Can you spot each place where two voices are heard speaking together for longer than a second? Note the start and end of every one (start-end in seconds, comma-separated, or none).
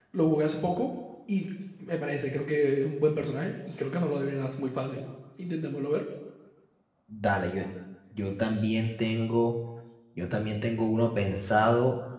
none